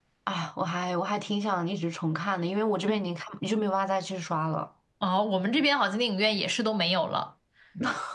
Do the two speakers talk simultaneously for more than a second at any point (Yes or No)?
No